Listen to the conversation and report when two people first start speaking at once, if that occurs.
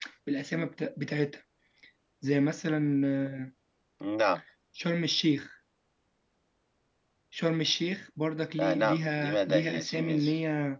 8.6 s

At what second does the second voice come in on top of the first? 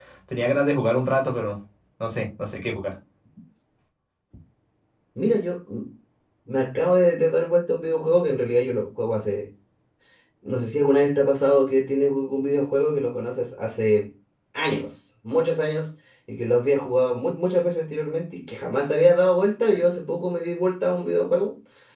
none

